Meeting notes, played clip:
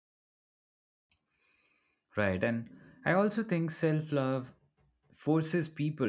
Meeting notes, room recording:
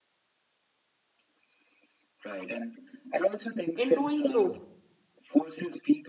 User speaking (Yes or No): Yes